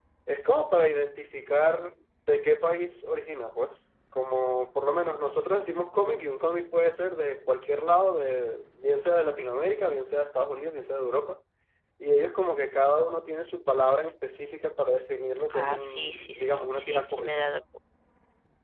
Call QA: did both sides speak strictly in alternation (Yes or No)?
No